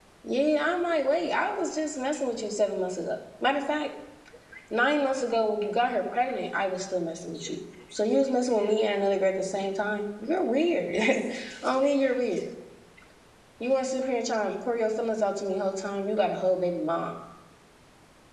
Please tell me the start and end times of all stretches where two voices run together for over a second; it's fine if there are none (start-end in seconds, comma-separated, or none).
none